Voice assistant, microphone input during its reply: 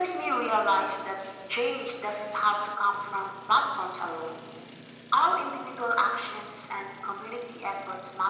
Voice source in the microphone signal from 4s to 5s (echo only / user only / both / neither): echo only